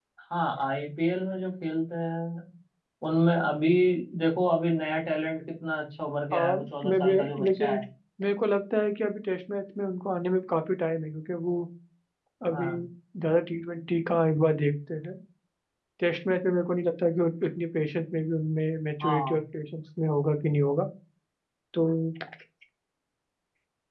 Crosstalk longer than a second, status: present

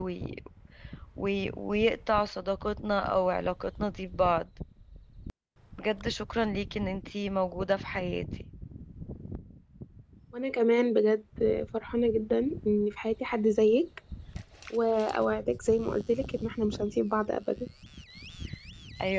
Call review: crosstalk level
none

